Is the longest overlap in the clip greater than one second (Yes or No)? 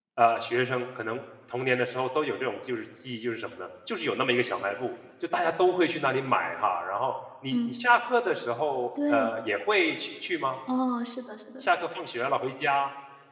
No